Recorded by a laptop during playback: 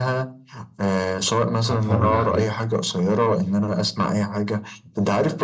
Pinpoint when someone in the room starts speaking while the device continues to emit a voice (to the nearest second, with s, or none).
2 s